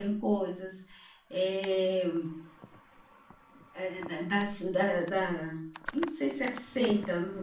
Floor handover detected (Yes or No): No